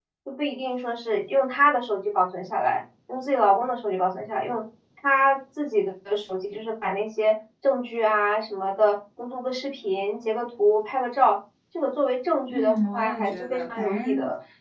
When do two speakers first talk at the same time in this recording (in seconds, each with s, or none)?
12.5 s